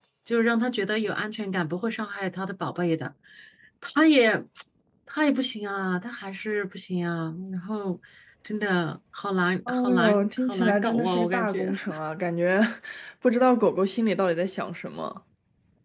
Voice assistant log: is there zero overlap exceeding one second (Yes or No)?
No